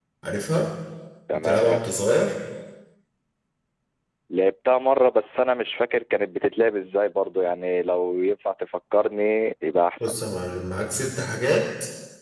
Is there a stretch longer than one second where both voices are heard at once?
No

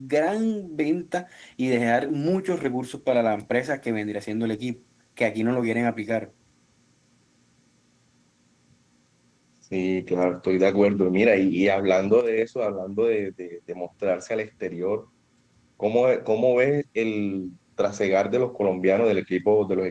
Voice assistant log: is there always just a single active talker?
Yes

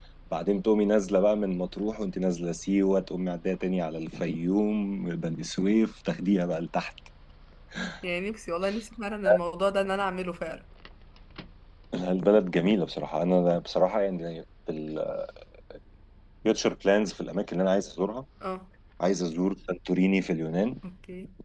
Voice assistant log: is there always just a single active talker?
Yes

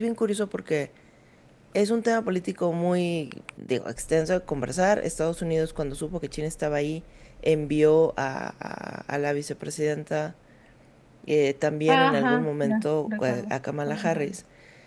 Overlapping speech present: Yes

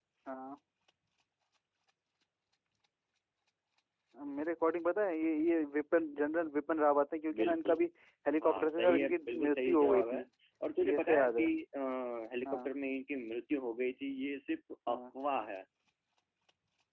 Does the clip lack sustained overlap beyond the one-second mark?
No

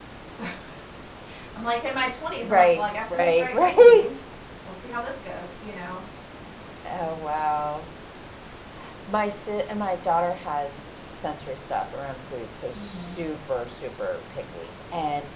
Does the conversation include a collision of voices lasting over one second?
Yes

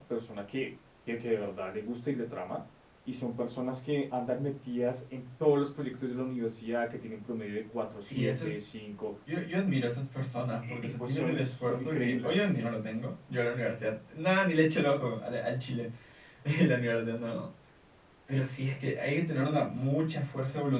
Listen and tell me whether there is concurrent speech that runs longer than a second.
Yes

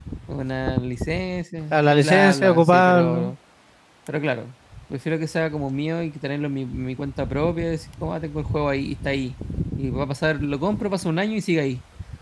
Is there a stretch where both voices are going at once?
Yes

